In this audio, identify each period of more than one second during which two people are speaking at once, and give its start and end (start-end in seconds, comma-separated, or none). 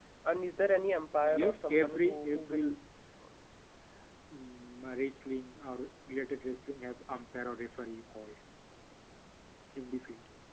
1.4-2.8